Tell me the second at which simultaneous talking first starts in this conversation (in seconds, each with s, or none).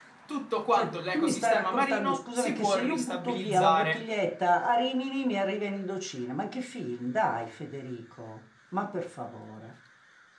0.7 s